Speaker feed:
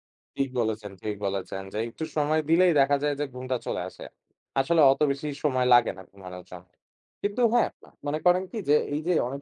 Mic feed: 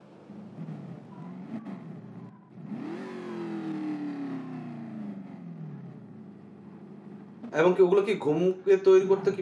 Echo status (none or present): none